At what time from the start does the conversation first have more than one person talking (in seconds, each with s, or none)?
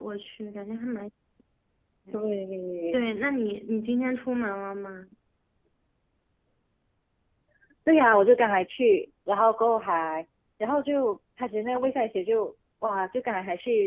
none